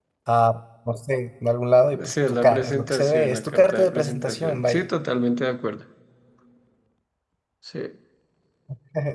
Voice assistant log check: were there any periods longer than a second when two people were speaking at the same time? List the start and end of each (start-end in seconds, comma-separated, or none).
2.0-4.9